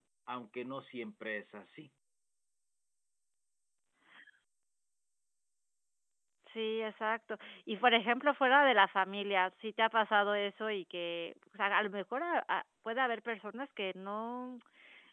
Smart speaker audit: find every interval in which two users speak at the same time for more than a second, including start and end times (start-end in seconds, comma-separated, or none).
none